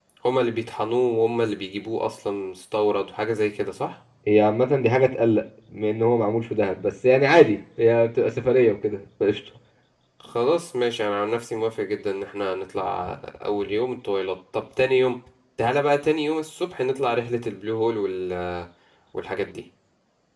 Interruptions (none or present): none